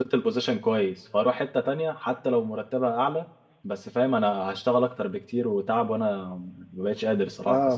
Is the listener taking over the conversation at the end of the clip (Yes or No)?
Yes